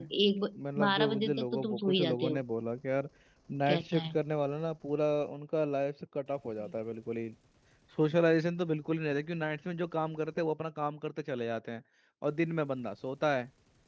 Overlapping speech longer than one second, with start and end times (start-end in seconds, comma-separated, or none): 0.6-2.4